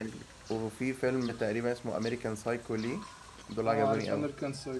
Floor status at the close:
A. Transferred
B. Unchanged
A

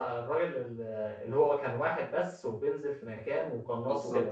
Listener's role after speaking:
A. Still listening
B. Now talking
B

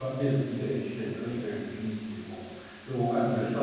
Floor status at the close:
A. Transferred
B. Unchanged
B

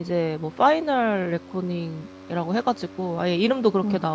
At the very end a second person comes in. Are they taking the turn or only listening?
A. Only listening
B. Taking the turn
A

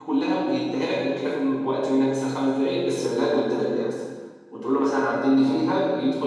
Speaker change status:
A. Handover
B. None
B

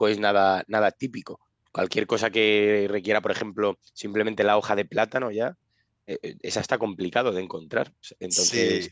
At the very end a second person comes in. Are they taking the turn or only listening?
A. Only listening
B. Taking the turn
A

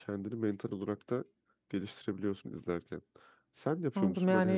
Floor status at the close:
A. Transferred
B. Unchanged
A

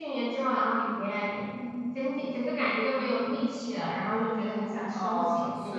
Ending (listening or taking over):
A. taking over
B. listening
A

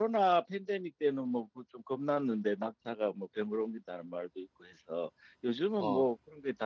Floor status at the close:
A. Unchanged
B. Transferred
A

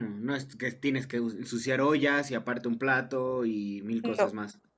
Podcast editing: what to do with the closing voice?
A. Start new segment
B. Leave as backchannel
A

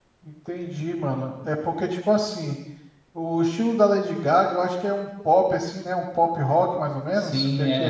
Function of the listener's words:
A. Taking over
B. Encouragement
A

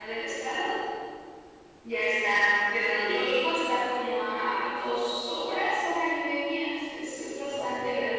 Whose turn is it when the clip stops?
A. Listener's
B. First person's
A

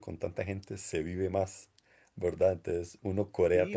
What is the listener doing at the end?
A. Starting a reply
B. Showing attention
A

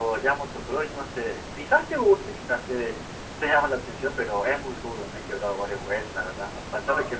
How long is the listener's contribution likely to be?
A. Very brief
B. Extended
A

